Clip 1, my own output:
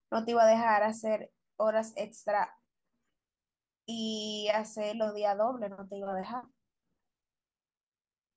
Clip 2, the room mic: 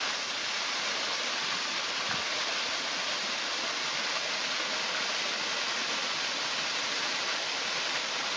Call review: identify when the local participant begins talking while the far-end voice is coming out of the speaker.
none

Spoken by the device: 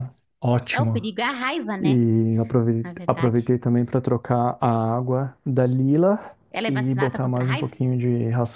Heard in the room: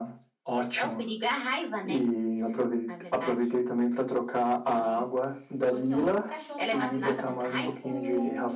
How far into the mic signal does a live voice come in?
4.7 s

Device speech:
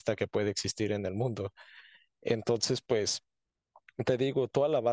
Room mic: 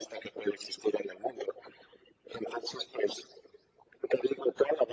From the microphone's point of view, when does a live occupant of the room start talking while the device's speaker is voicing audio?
none

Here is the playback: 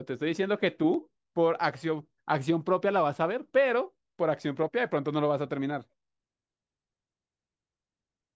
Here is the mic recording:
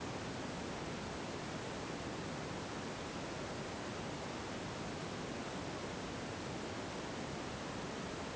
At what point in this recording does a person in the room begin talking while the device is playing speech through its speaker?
none

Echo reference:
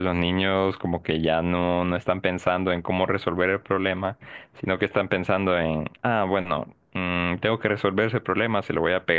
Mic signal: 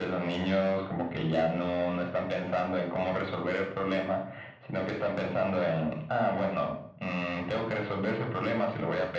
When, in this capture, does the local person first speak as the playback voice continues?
none

